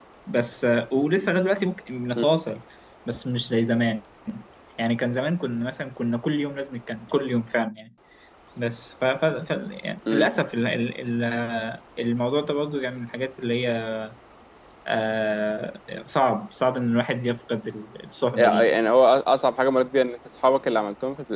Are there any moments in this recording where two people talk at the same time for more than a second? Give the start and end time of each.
none

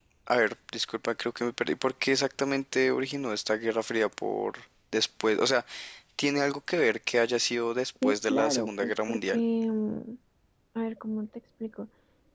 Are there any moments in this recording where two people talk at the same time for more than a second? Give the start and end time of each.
8.0-9.4

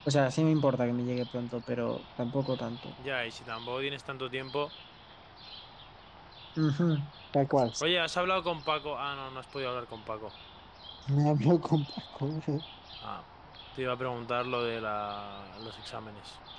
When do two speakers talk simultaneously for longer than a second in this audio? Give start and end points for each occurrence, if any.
none

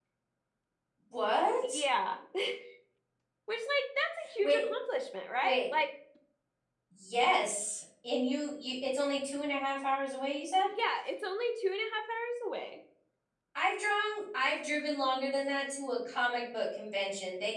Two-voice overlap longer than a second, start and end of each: none

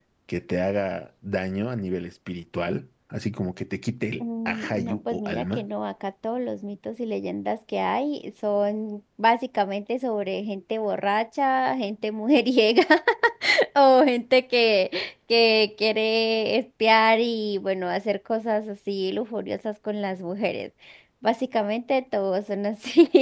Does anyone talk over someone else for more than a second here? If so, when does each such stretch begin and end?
4.2-5.7

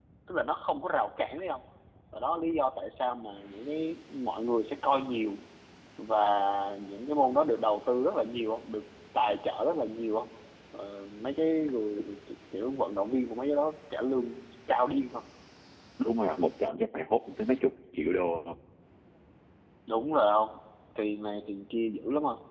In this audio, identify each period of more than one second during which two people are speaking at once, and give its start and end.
none

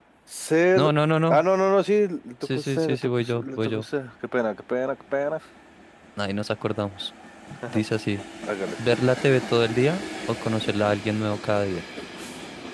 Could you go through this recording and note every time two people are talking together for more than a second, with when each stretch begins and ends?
2.5-3.8

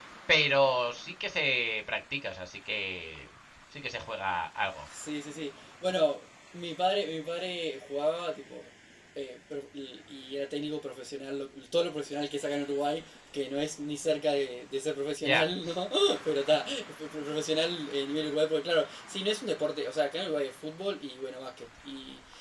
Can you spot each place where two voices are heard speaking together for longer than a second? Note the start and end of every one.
none

